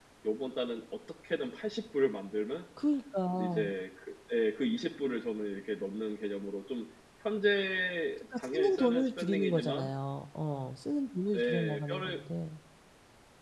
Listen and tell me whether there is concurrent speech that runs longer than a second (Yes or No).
Yes